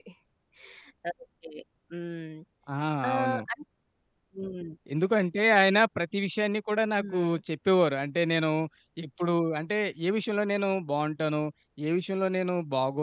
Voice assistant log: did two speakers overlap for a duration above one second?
No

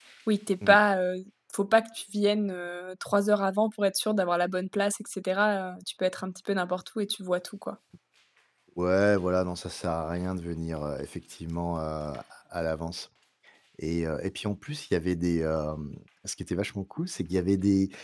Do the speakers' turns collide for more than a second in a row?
No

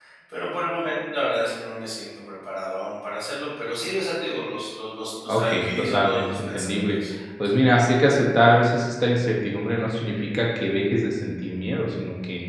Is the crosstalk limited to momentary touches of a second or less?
No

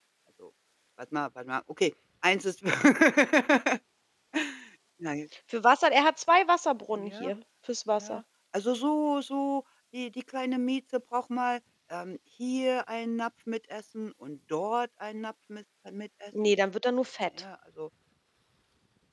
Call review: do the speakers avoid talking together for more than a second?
Yes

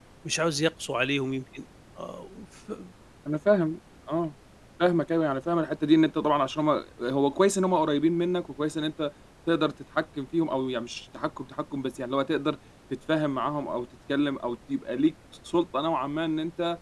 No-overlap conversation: Yes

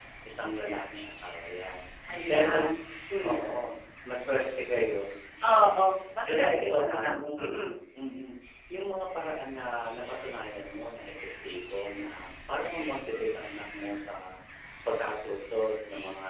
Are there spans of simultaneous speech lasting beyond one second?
Yes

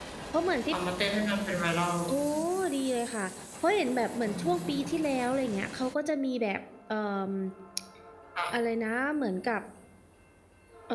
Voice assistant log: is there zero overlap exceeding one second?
Yes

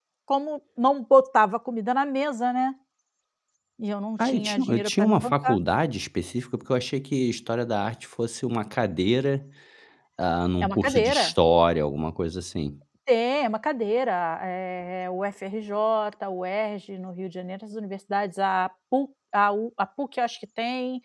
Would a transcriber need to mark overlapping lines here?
Yes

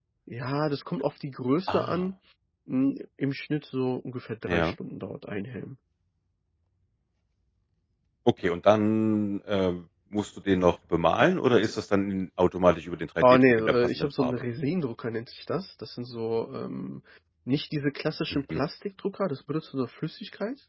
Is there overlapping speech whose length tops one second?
Yes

